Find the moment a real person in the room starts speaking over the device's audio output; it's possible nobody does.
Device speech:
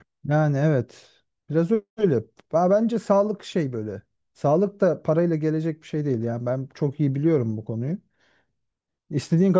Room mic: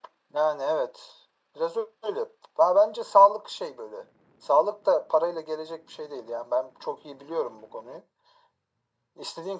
none

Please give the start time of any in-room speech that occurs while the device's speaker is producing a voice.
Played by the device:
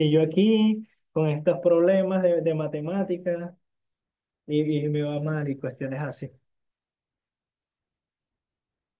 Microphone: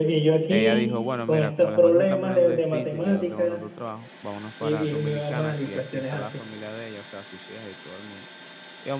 0.5 s

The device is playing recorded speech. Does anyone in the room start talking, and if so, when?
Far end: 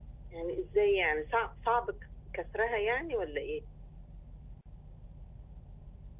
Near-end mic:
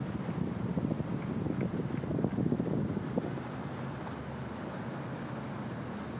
none

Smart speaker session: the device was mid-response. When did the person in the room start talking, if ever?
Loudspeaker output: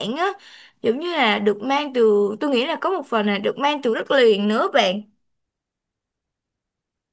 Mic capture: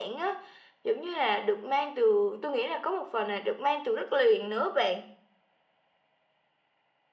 none

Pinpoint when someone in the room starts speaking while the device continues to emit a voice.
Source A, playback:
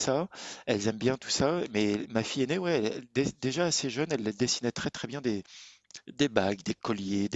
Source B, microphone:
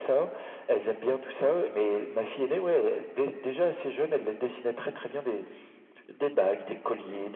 none

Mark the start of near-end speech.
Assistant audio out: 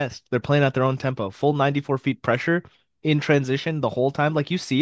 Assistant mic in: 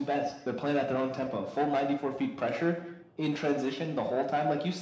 none

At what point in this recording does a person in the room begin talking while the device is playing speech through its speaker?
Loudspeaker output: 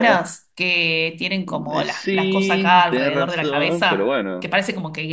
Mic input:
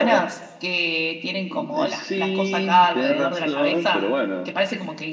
none

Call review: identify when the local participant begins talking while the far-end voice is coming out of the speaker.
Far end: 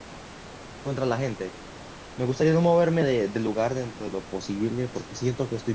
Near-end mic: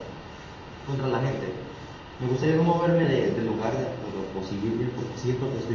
none

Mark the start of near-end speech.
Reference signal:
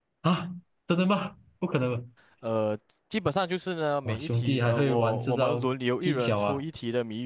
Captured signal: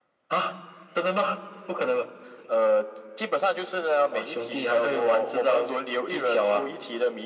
none

